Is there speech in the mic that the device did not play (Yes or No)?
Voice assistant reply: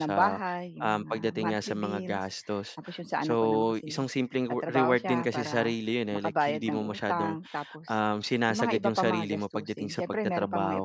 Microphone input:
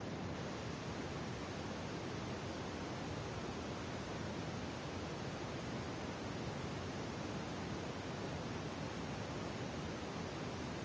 No